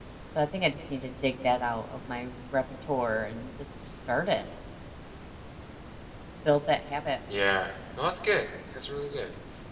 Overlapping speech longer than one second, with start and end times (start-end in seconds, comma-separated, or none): none